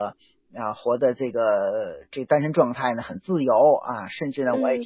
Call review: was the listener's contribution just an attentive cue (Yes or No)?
No